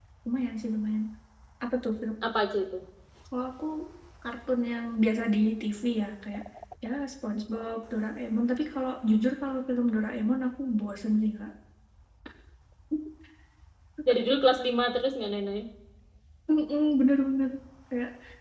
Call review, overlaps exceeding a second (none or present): none